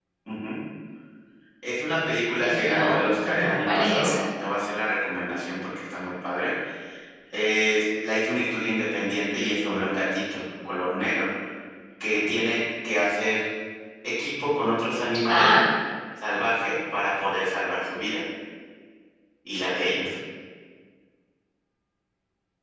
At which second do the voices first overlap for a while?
2.4 s

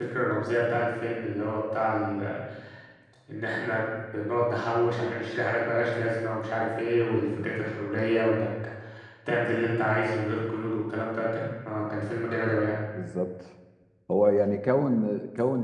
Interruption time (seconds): none

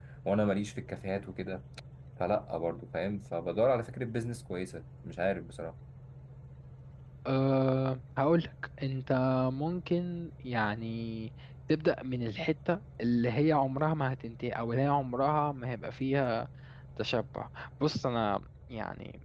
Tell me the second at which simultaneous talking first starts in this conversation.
none

